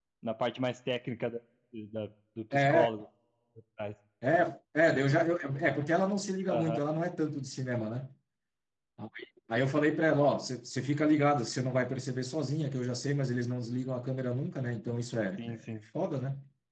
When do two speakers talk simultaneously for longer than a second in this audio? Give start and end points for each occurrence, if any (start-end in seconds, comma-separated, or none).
none